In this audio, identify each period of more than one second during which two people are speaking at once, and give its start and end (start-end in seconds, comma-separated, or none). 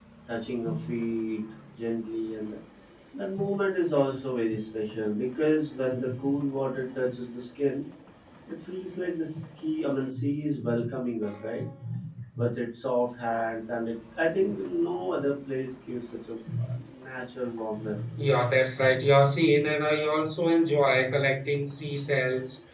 none